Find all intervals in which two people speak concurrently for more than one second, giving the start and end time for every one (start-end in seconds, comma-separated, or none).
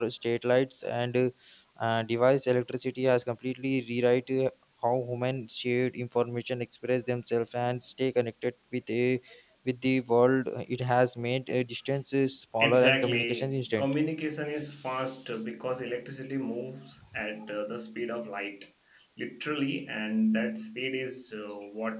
12.6-13.8